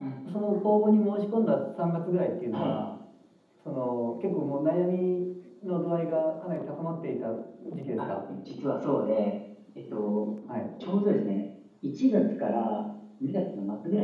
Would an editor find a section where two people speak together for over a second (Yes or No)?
No